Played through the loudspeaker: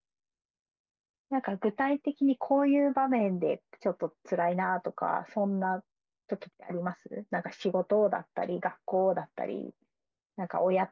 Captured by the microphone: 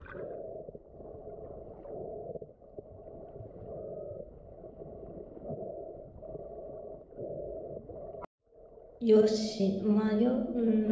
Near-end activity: present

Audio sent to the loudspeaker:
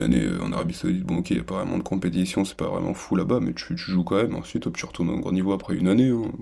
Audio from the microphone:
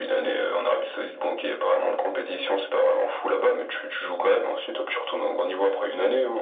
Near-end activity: none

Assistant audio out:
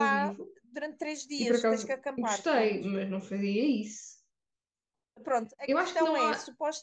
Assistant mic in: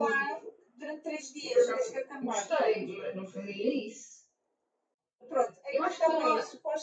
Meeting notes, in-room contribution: none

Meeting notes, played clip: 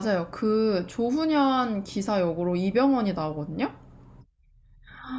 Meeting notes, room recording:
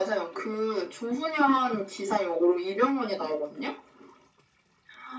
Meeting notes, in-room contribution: none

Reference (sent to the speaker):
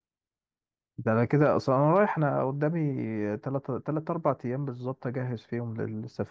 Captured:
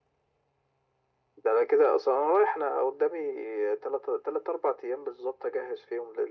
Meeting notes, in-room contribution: none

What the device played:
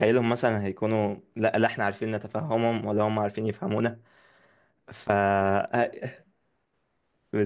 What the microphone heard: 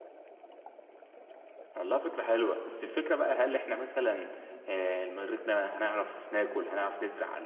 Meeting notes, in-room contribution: present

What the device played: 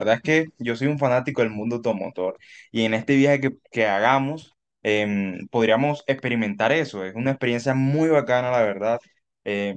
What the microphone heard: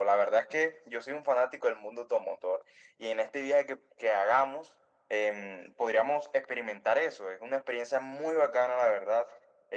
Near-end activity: none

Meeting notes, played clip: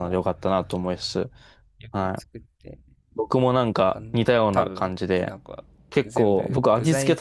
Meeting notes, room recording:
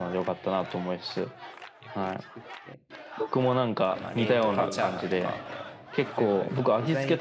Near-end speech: present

